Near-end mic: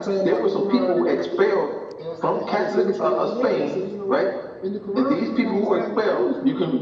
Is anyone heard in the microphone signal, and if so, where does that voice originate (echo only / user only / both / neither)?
echo only